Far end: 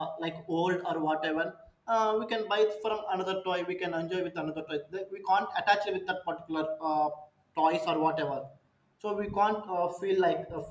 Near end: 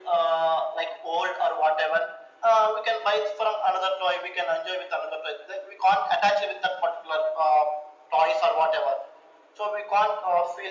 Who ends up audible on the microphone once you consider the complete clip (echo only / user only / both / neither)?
echo only